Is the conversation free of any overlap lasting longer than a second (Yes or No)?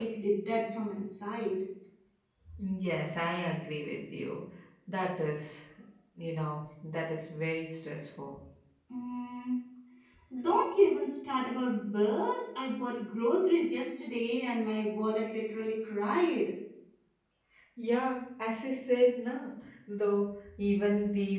Yes